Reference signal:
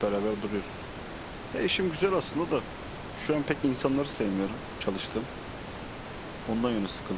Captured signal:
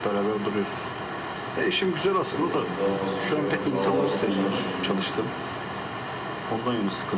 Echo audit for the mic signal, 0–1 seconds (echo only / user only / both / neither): echo only